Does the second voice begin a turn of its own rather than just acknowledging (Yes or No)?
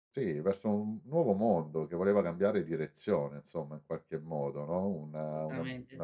No